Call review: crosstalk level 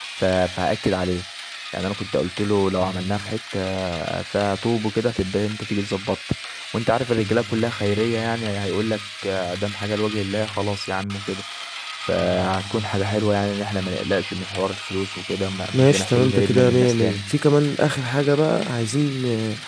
present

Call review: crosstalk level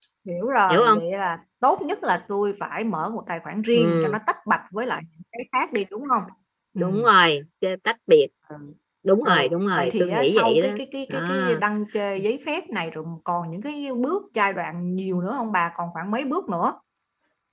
present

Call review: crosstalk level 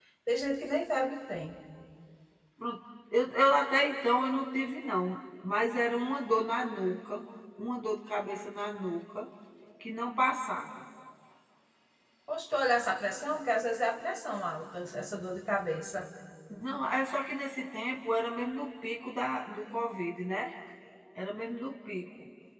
none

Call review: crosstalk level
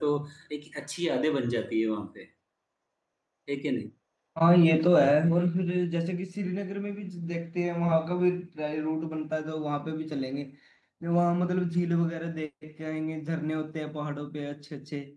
none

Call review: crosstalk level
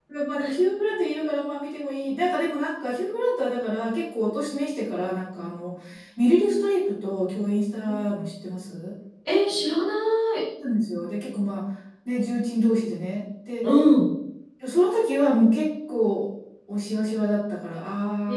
none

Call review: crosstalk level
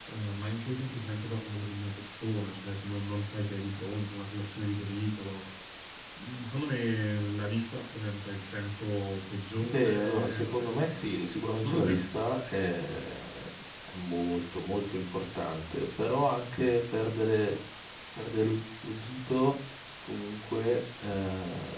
present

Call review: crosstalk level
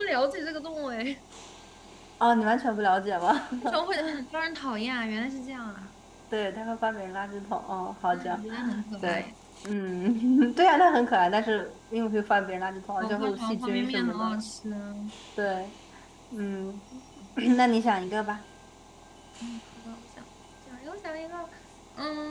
present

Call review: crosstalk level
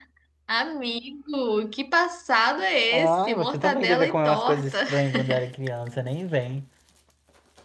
present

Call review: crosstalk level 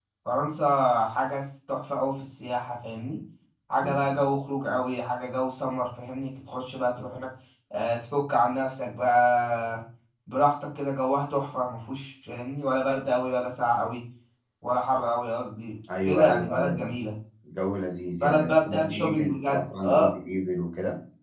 present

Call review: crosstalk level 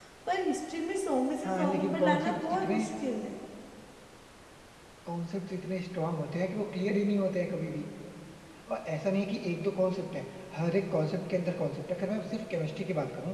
present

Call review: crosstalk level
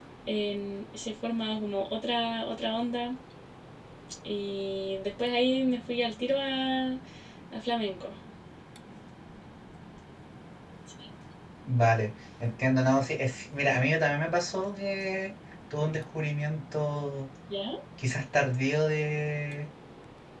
none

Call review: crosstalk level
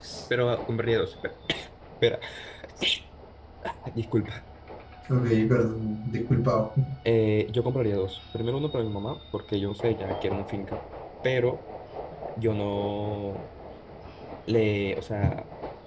none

